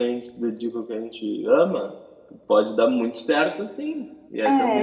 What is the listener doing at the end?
listening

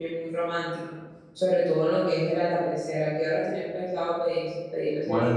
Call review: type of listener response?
taking over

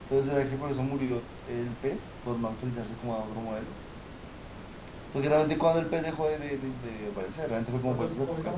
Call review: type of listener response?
taking over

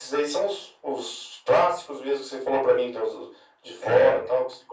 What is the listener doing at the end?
listening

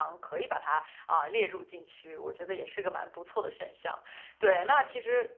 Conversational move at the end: listening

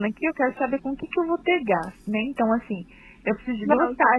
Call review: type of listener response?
listening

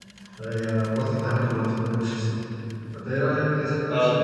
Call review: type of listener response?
listening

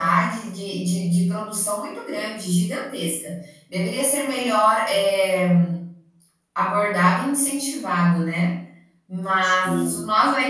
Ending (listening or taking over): listening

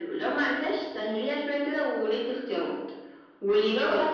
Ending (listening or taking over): listening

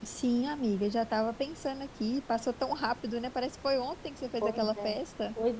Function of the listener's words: taking over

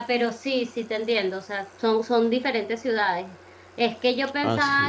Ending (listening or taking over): listening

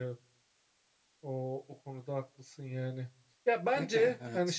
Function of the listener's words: listening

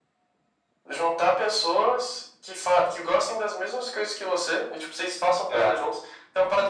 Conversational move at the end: listening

